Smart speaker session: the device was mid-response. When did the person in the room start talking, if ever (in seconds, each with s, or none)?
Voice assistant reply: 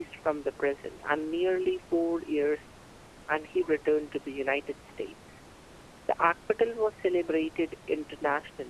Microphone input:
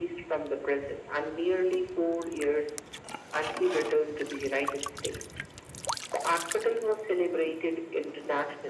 none